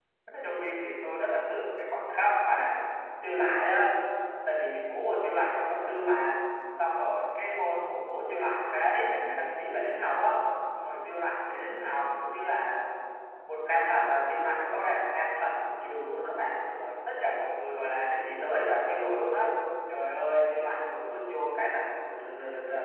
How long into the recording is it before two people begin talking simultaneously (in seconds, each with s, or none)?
none